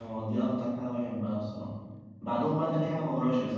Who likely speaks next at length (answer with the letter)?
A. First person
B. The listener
A